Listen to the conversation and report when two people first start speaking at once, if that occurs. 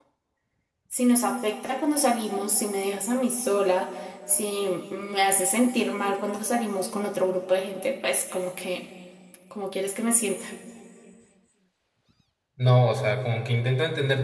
none

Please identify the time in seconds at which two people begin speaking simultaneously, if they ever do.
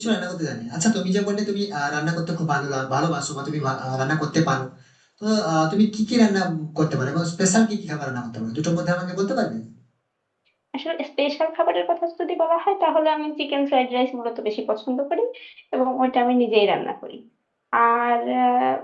none

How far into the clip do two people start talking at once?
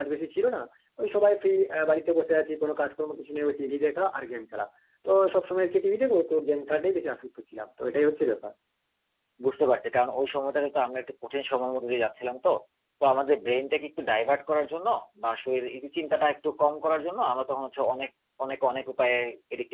none

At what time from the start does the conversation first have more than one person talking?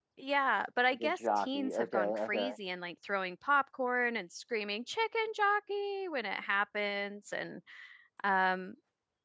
0.9 s

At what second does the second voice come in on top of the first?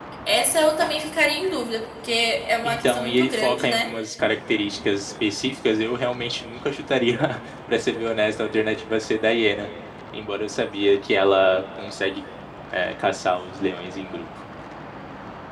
2.6 s

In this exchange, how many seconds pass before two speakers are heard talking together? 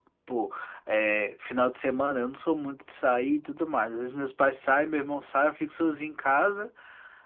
none

